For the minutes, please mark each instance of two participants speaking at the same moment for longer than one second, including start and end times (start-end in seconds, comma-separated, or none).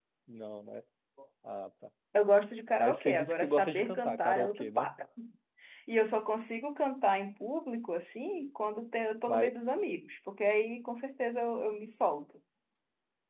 2.8-4.9